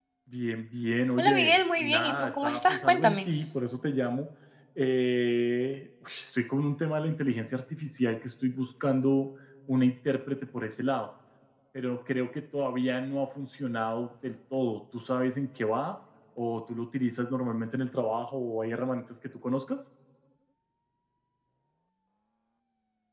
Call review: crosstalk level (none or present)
present